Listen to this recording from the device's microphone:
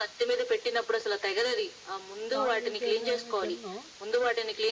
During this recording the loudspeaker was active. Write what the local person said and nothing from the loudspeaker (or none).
నాన్ వెజిటేరియన్ ఏమి తినను.